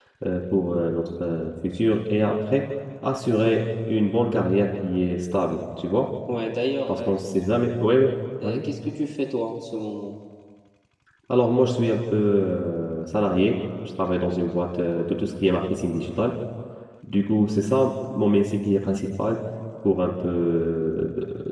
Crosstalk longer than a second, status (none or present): none